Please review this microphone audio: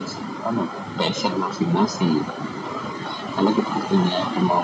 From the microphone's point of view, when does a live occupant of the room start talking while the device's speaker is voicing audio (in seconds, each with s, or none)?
none